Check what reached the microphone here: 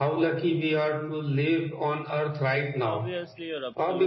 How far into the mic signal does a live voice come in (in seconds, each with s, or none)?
2.8 s